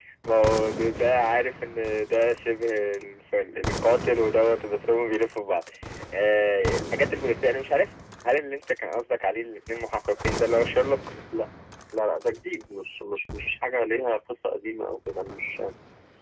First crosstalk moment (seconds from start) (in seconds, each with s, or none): none